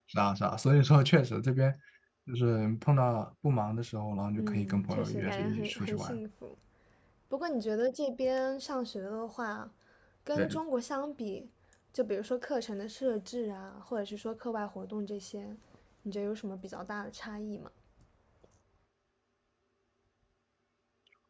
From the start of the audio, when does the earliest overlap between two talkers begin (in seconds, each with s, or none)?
4.4 s